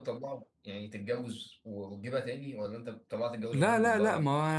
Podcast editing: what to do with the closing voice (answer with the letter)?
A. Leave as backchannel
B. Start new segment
B